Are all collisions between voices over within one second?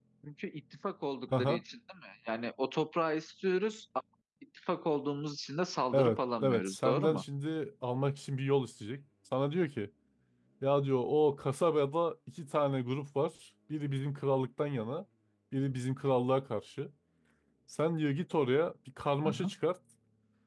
No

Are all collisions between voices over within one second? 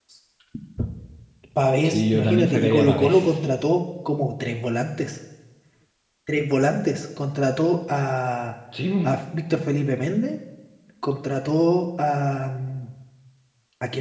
No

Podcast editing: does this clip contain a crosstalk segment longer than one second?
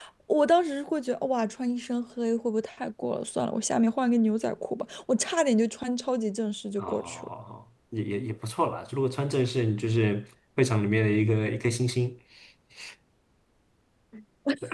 No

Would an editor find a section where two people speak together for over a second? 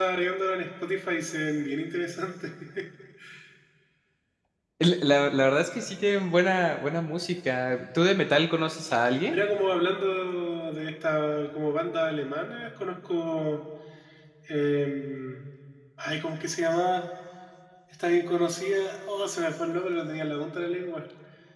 No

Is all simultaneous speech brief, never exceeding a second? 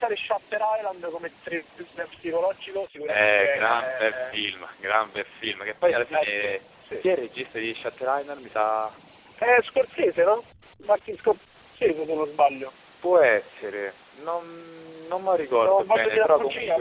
No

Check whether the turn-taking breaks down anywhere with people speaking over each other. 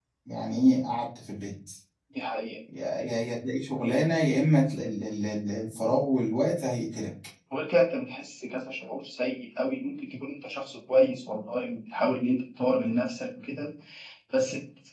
No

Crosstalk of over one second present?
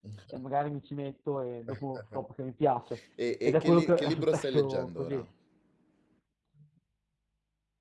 Yes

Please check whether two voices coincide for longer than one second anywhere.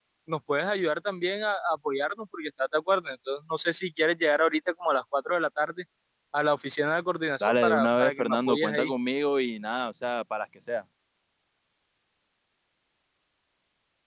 Yes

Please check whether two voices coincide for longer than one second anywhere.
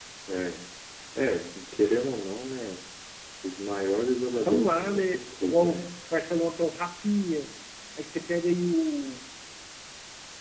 Yes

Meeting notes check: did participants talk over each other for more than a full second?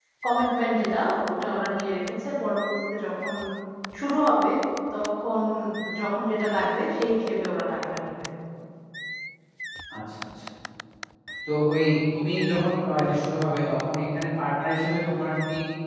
No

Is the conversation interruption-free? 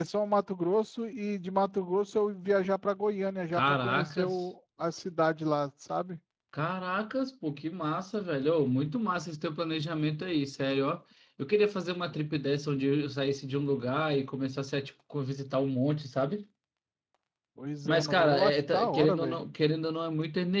No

